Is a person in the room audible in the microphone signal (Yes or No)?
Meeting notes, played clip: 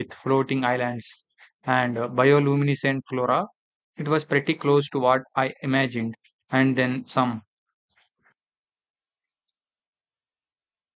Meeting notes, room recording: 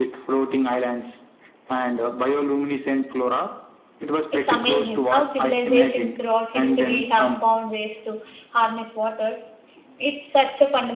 Yes